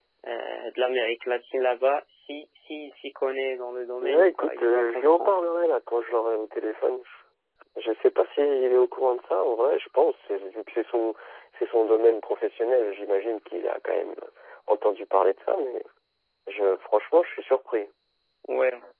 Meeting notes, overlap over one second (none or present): present